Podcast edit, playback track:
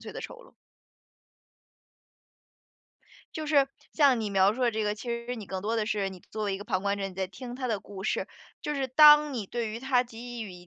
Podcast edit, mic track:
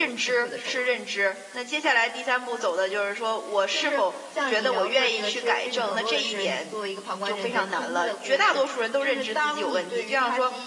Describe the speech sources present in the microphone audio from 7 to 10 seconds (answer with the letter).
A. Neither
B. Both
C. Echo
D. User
B